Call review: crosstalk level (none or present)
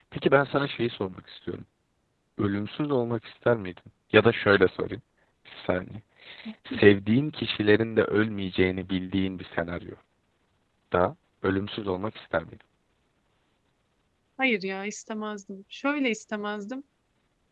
none